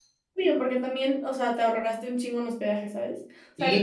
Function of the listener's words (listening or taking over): taking over